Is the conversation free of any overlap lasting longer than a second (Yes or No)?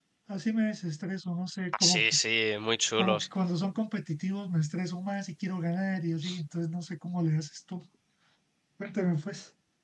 Yes